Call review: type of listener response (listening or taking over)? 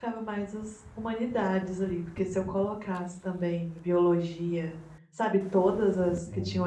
listening